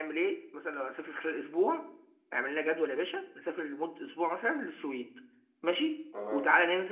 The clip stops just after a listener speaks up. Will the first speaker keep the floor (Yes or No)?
Yes